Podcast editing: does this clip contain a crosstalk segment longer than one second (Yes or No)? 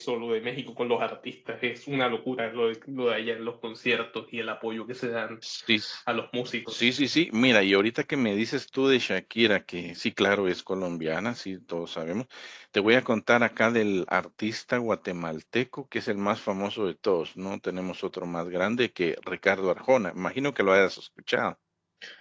No